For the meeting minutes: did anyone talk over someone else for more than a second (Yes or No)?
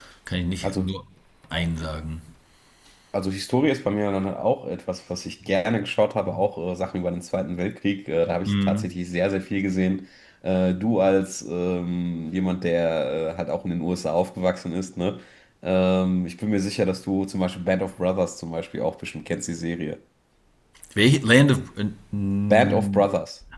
No